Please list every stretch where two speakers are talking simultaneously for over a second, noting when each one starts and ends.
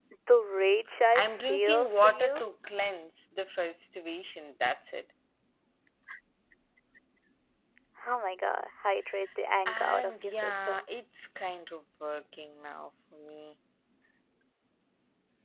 1.1-2.4, 9.7-10.9

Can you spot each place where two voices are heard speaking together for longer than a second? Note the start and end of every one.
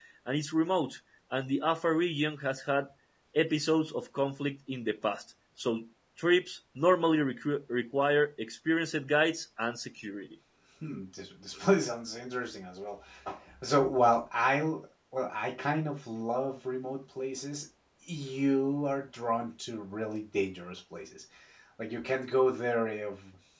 none

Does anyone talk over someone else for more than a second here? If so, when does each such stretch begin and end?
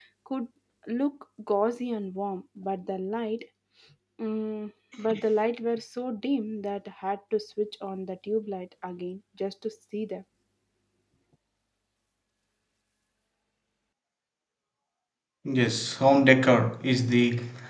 none

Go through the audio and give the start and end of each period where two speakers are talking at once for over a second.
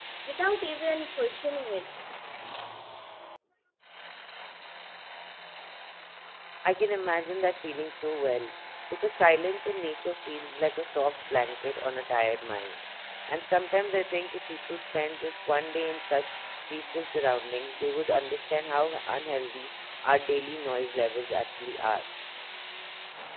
none

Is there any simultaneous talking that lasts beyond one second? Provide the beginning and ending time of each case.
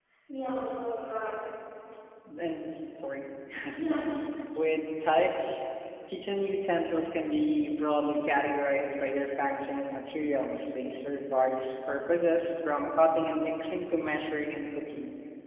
none

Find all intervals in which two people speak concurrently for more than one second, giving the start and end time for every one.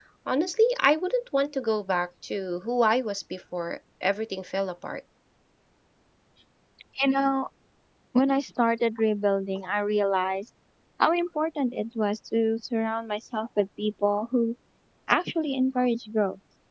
none

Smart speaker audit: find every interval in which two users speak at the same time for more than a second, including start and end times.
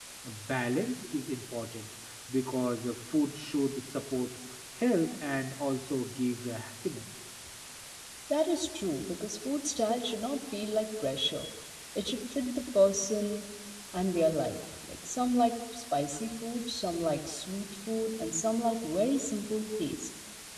none

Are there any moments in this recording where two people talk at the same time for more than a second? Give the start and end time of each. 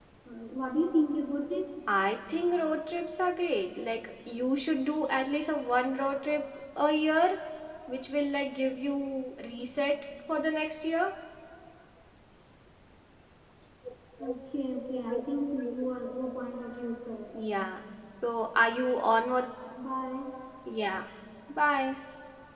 none

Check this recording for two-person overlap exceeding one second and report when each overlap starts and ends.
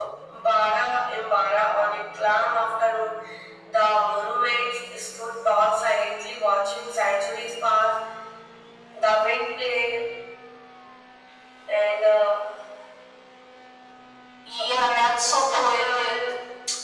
14.6-16.1

